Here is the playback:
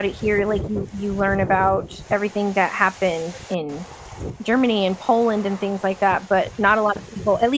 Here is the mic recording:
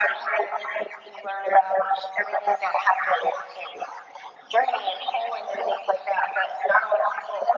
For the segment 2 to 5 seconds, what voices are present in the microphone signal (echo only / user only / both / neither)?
echo only